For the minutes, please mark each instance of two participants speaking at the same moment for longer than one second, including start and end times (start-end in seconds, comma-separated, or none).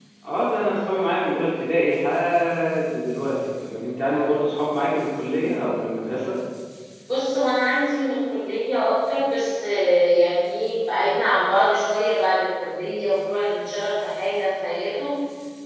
none